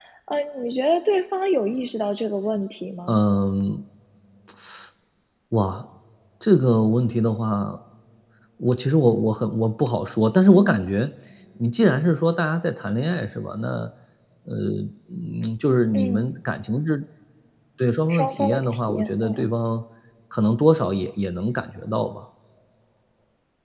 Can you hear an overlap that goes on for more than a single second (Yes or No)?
Yes